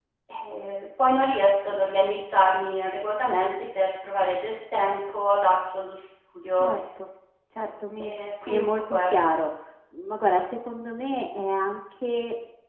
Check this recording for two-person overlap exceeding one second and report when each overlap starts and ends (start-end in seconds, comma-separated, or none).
8.0-9.2